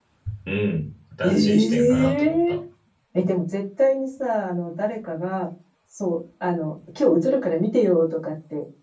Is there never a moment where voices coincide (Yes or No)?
No